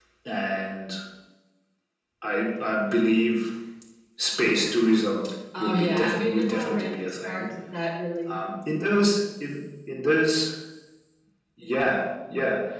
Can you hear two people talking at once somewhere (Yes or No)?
Yes